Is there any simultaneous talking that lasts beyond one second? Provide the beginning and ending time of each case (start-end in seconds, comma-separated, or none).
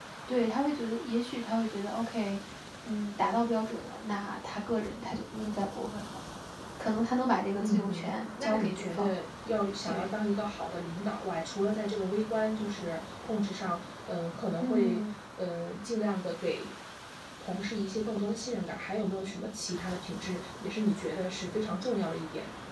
7.6-9.1